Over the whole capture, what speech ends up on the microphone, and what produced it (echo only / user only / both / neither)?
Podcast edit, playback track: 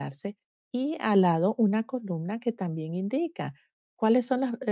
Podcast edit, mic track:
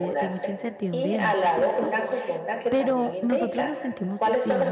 both